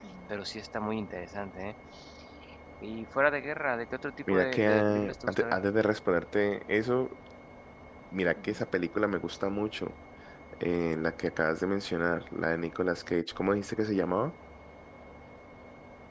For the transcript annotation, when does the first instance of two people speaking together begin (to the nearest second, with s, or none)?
4 s